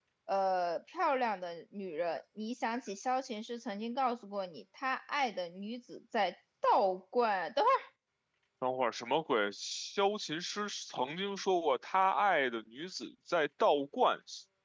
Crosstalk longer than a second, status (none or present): none